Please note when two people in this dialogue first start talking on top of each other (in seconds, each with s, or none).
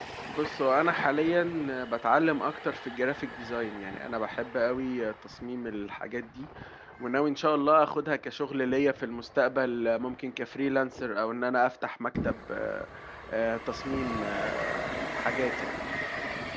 none